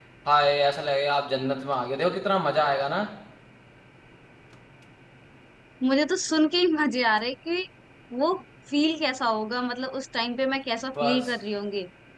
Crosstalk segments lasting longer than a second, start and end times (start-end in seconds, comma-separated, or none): none